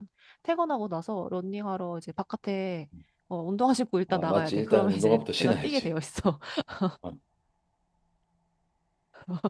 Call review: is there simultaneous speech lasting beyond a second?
Yes, from 4.1 s

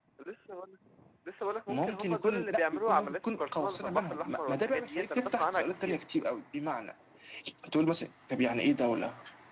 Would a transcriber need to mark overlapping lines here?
Yes, from 1.7 s

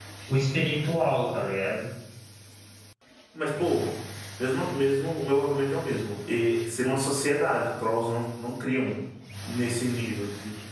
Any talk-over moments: No

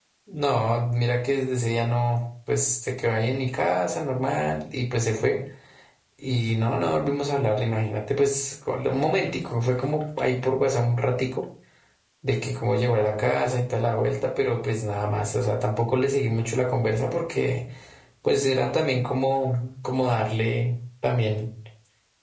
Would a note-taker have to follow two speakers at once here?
No

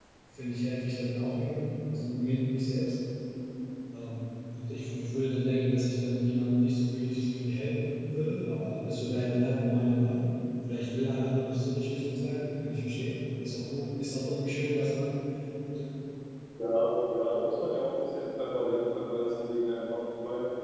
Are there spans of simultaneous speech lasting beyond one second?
No

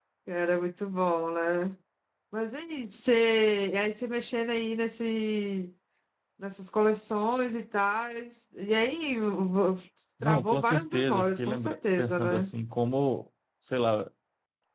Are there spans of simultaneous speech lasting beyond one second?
Yes, from 10.2 s

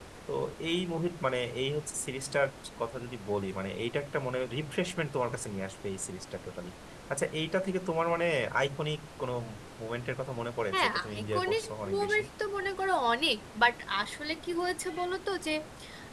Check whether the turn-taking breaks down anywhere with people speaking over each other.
Yes, from 10.7 s

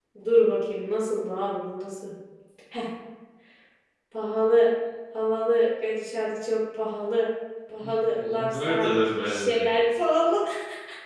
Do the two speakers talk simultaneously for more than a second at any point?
Yes, from 7.8 s

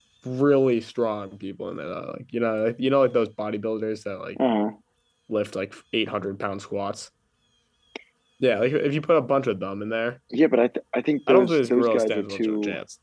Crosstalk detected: Yes, from 11.3 s

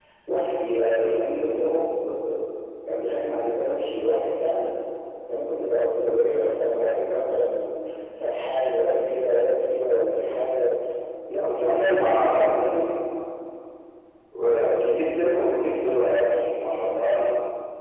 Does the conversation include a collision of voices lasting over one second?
Yes, from 11.5 s

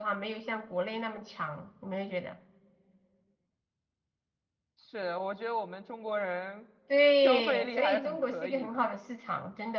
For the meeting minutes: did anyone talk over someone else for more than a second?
Yes, from 7.2 s

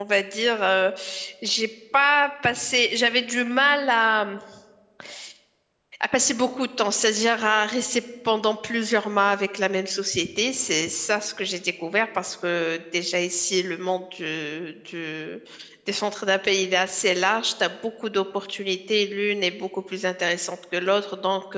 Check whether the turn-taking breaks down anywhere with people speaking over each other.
No

